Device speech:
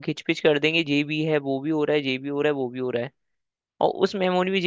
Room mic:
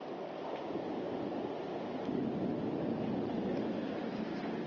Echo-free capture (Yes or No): Yes